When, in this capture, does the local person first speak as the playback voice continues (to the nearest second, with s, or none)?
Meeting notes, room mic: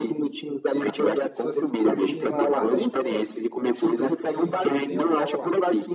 1 s